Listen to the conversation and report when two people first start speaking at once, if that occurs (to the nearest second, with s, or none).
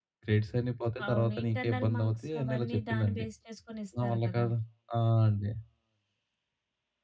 1 s